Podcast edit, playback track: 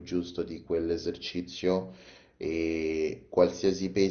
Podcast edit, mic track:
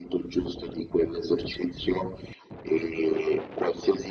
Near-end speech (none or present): none